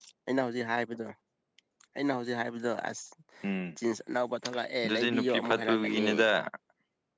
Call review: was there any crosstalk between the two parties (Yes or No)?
Yes